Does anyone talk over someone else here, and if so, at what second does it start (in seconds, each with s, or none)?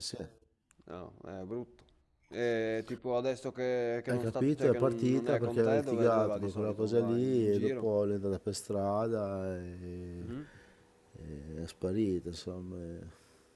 4.1 s